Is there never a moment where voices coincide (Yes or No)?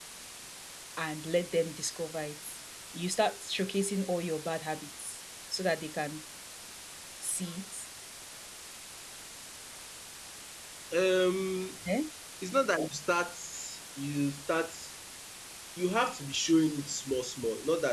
Yes